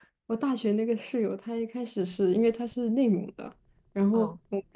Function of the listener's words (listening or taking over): listening